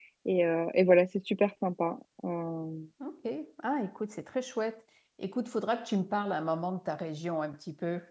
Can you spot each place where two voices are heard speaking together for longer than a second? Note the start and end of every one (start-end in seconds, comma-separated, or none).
none